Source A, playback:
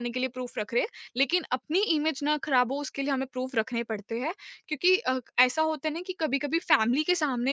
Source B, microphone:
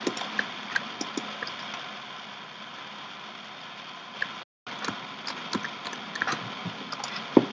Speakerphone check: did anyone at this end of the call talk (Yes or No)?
No